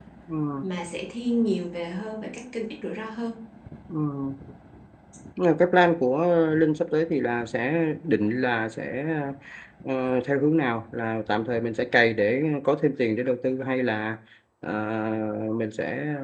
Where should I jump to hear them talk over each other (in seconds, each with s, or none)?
none